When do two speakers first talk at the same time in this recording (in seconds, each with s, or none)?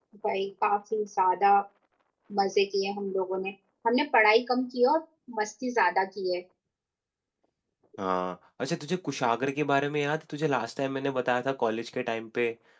none